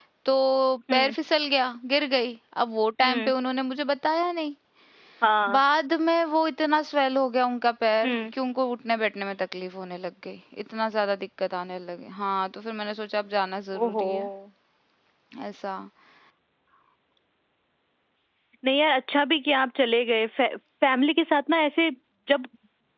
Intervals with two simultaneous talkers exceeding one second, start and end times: none

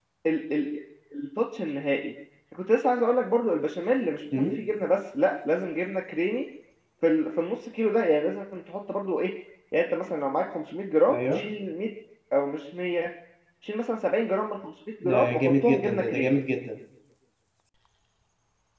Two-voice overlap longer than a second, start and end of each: 15.1-16.3

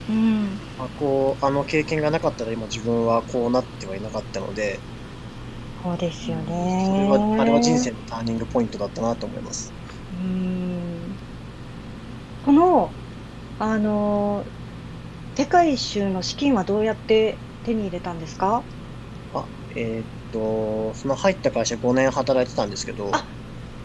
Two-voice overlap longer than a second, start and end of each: 6.2-7.9

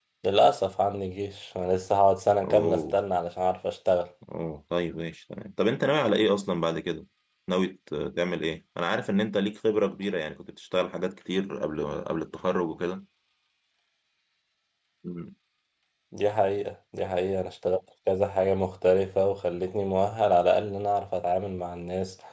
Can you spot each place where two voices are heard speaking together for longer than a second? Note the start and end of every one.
none

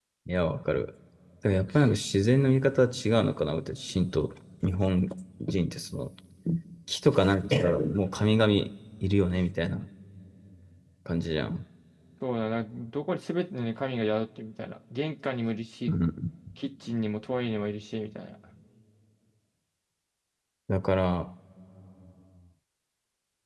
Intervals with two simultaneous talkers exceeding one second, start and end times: none

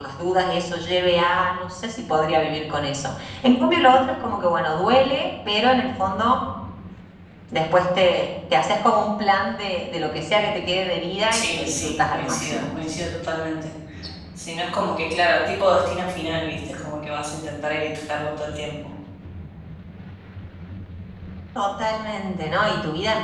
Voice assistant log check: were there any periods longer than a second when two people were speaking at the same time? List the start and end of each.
11.3-12.7

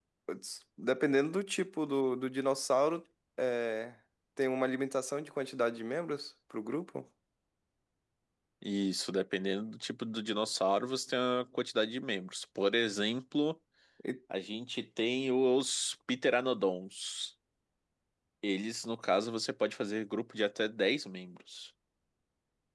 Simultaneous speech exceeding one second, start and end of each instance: none

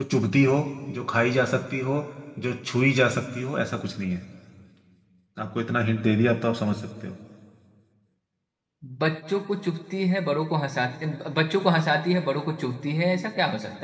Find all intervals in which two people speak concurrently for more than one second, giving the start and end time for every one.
none

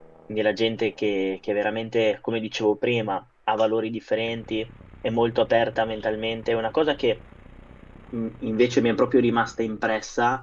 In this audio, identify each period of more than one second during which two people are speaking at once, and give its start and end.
none

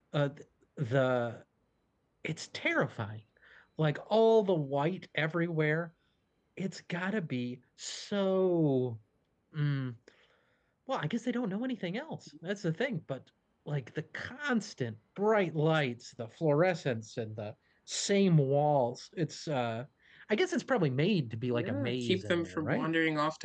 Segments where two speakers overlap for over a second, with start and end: 21.5-22.9

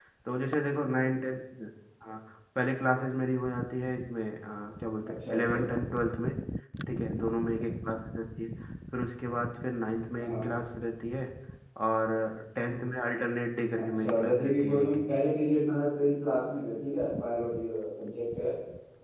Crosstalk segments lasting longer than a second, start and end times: 13.8-15.1

